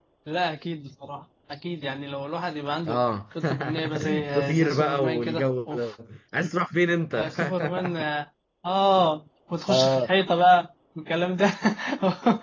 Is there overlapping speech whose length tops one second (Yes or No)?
Yes